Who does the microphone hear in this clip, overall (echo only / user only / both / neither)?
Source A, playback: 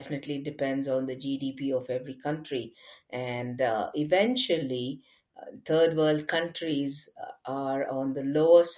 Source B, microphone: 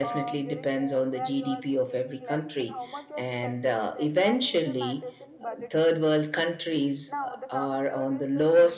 both